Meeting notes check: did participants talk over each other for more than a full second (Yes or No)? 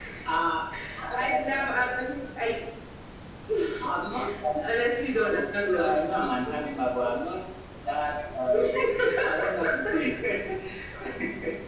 Yes